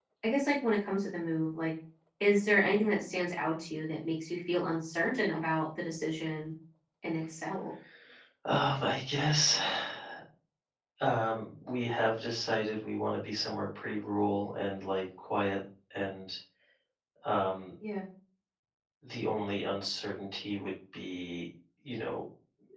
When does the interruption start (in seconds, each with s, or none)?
none